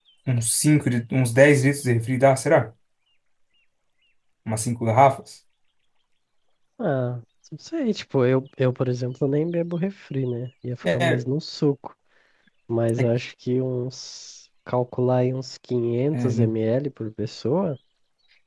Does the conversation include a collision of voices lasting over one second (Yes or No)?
No